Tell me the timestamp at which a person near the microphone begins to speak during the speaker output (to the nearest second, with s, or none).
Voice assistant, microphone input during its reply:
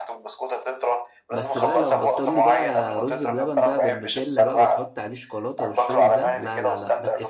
1 s